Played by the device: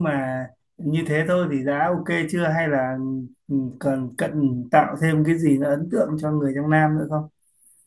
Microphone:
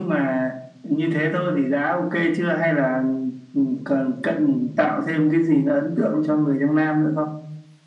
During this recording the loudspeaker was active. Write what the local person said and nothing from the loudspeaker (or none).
none